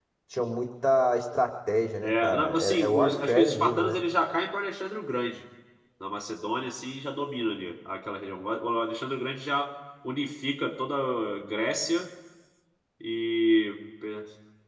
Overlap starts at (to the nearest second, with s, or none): 2 s